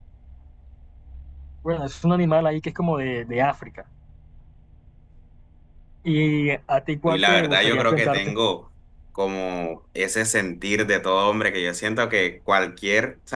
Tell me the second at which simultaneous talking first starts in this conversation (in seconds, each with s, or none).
7.1 s